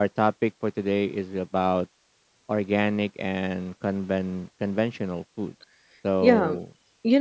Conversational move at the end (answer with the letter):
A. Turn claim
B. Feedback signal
A